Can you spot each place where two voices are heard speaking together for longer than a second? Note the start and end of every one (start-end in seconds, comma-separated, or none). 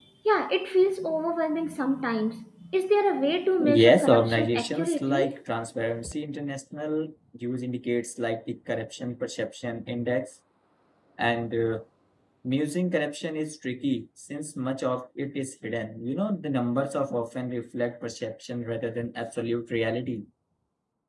3.6-5.3